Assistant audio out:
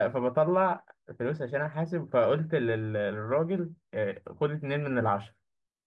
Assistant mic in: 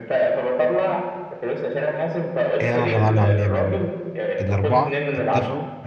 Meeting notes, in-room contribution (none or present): present